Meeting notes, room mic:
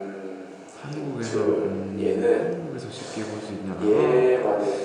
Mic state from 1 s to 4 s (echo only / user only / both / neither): both